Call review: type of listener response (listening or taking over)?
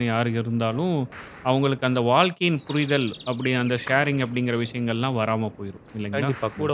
taking over